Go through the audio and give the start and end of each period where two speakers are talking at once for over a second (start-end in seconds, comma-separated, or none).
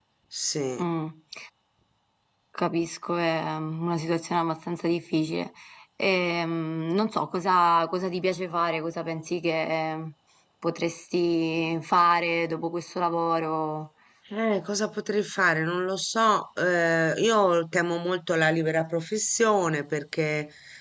none